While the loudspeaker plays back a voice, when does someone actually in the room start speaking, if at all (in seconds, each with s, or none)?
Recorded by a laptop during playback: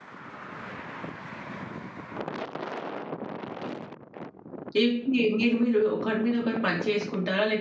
4.8 s